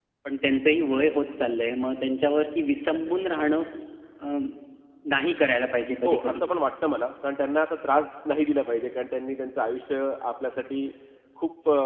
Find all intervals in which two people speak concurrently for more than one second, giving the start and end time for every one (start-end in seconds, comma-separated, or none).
none